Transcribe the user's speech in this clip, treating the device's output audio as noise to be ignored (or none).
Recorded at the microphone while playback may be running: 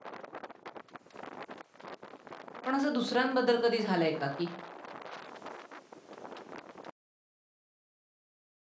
पण असं दुसऱ्यांबद्दल कधी झालंय का, की